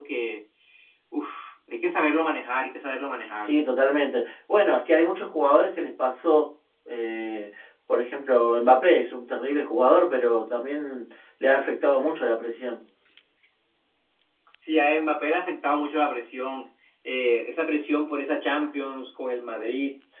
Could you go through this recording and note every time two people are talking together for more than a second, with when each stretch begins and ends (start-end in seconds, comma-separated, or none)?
none